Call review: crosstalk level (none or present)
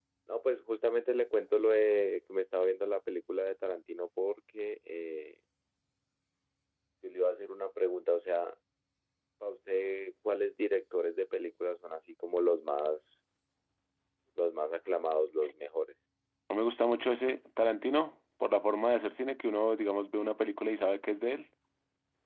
none